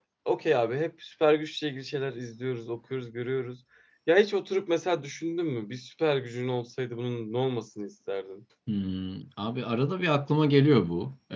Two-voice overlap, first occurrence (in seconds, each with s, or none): none